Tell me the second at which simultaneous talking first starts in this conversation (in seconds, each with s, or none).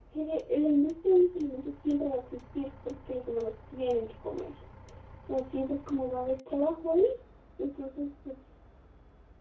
none